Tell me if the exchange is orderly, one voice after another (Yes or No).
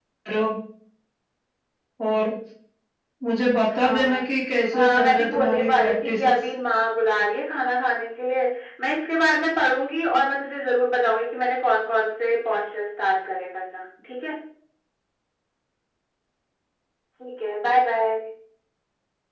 No